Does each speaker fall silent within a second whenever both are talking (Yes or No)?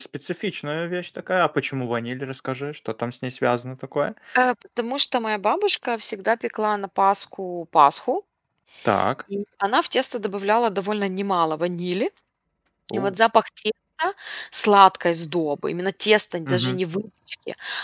Yes